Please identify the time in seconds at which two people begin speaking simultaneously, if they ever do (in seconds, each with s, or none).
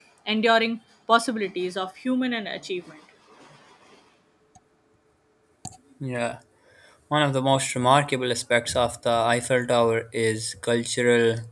none